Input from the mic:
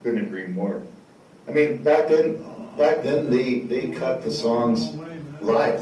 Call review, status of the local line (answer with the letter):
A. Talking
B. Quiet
A